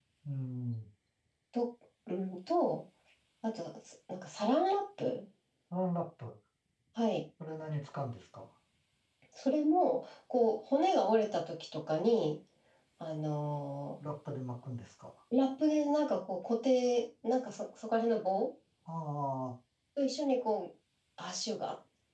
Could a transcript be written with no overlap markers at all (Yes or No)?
Yes